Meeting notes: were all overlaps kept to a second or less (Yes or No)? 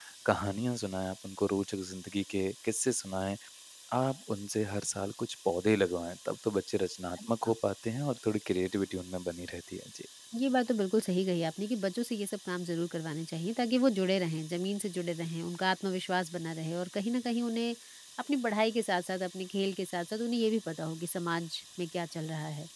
Yes